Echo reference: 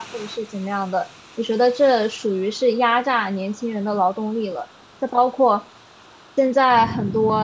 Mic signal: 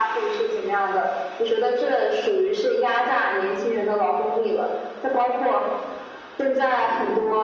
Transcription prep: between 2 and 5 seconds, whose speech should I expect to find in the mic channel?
echo only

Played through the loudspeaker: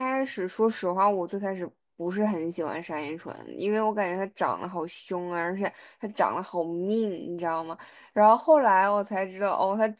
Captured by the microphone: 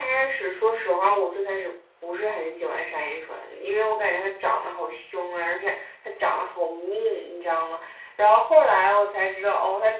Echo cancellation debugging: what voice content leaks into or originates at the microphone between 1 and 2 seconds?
echo only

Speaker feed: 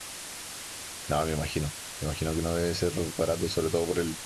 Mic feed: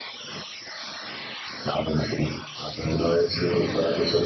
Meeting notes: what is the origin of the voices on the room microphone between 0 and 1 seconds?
neither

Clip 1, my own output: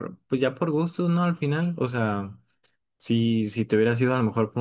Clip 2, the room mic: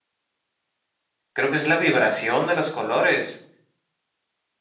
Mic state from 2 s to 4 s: user only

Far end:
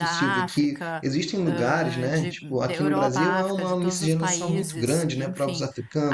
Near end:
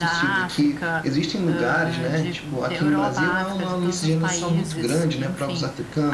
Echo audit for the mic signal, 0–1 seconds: echo only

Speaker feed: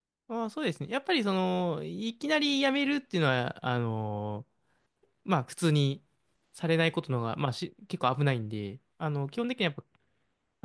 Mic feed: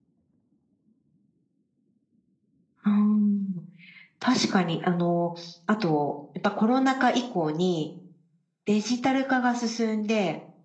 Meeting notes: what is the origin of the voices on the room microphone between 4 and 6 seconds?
user only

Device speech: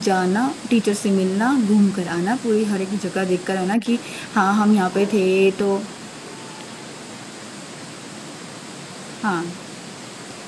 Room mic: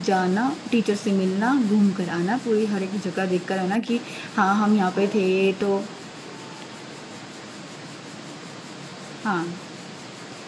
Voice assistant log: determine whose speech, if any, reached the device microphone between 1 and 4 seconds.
echo only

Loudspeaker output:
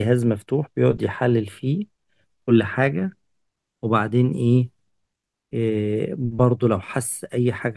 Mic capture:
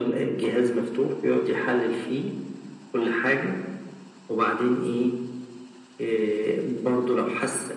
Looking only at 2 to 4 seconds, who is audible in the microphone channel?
echo only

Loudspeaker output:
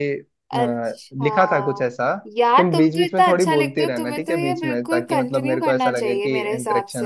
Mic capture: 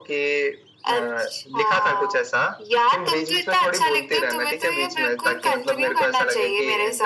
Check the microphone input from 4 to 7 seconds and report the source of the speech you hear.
echo only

